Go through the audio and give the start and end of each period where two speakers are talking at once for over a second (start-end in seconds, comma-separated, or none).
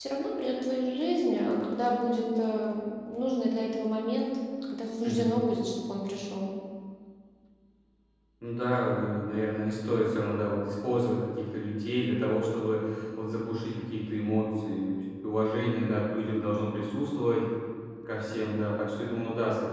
none